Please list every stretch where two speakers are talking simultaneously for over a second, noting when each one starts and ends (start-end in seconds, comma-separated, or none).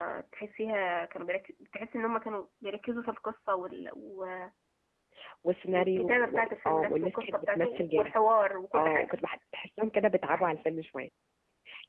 5.7-8.1